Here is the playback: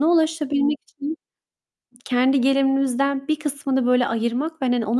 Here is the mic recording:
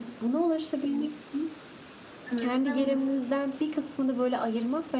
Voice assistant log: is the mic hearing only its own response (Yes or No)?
No